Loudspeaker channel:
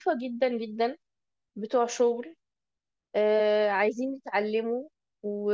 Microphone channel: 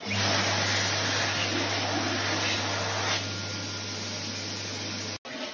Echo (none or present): none